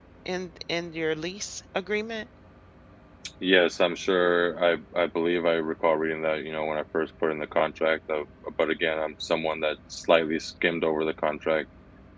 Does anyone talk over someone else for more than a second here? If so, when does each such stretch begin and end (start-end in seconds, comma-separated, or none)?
none